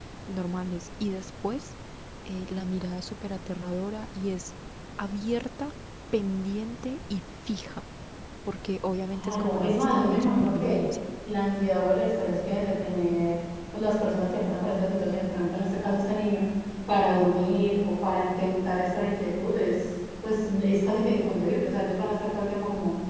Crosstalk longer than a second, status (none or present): present